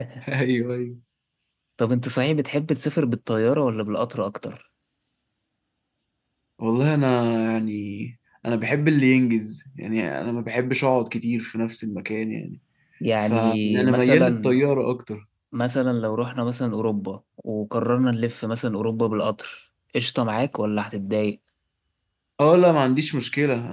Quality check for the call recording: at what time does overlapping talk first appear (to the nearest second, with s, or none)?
13 s